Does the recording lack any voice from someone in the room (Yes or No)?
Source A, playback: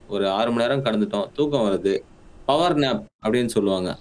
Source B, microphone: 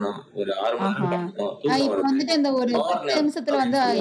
No